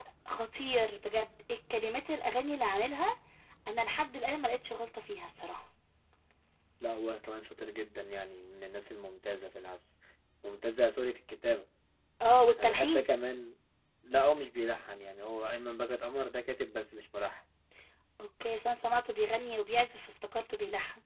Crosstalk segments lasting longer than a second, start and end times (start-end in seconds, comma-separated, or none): none